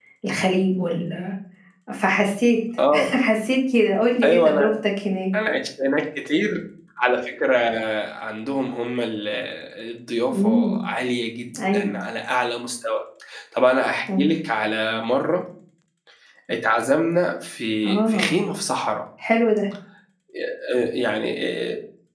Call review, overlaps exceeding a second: none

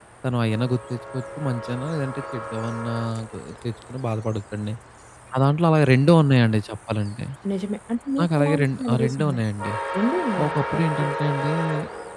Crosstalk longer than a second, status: present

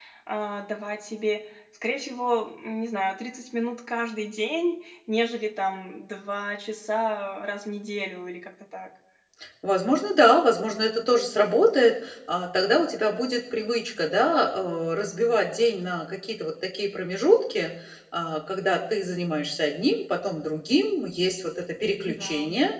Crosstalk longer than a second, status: none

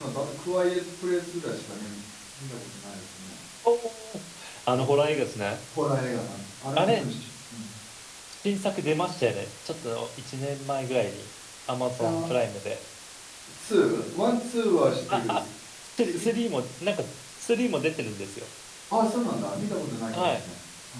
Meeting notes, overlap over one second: none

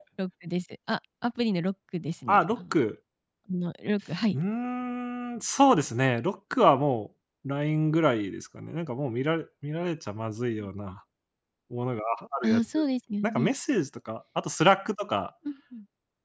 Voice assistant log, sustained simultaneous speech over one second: none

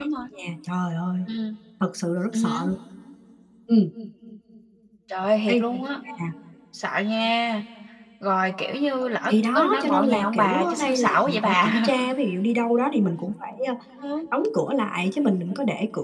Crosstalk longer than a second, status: present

